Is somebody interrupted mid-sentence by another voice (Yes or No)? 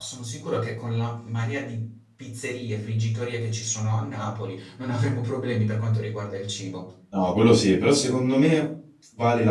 No